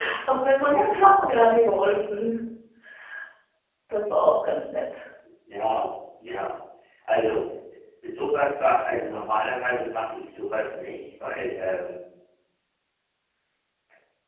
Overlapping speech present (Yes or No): No